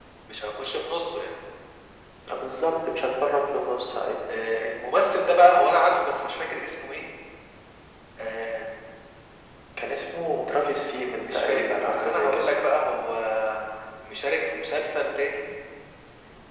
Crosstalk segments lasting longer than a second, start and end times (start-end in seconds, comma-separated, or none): 11.2-12.5